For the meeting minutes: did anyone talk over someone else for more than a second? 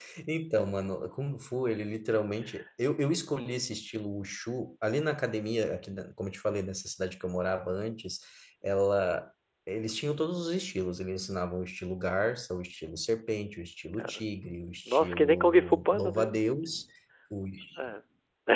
Yes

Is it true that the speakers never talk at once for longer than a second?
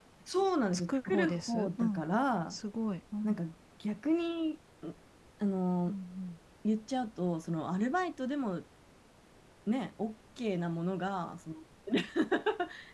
No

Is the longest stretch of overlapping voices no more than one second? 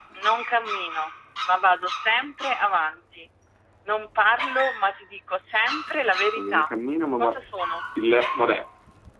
Yes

